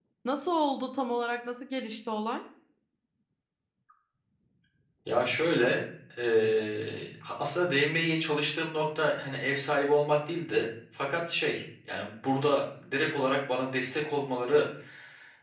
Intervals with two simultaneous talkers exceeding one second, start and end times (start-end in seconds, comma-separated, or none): none